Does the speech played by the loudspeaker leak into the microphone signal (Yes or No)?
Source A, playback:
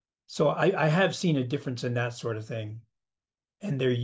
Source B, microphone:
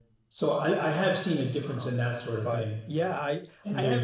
Yes